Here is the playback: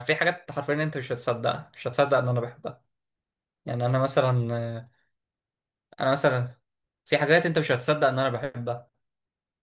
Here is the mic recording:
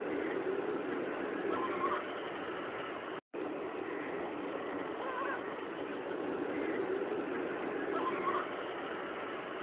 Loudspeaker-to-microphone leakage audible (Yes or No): No